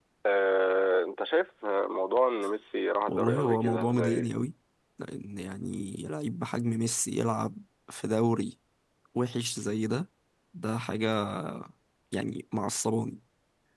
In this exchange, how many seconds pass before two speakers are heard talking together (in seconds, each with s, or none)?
3.1 s